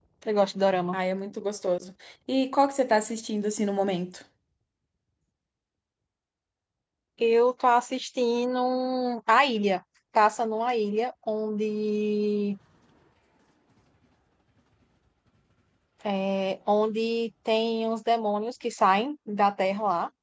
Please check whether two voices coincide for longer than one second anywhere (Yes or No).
No